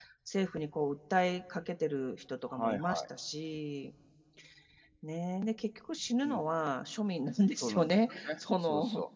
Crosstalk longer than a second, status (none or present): present